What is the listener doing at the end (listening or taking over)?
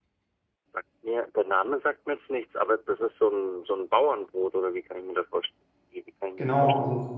taking over